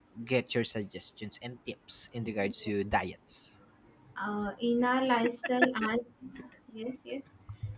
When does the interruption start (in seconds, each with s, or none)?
none